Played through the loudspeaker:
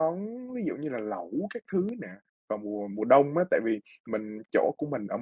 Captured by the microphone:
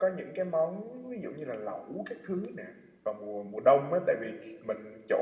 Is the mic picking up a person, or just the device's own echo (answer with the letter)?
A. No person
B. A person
A